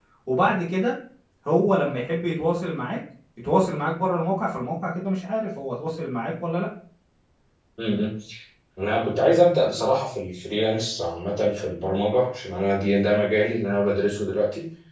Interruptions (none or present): none